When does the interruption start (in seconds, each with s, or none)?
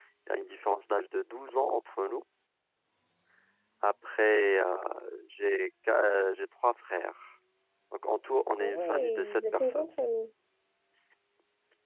8.6 s